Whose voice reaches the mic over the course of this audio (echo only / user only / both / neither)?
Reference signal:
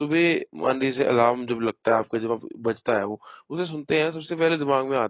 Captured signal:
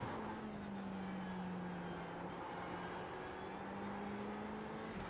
neither